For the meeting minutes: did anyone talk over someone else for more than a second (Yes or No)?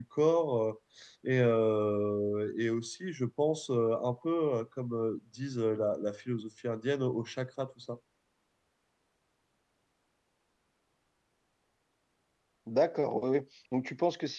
No